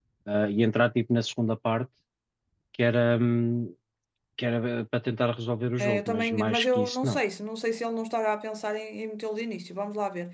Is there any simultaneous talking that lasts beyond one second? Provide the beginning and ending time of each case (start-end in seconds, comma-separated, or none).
5.8-7.2